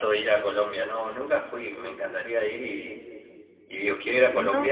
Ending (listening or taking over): listening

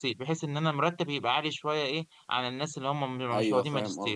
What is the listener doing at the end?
taking over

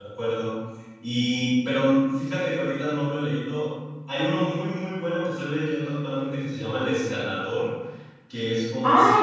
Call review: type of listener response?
taking over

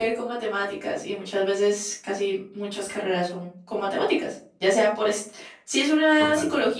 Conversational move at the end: listening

